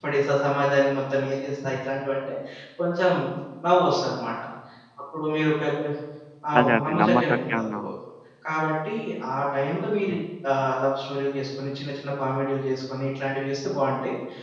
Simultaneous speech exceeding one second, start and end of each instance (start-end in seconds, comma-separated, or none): 6.6-7.9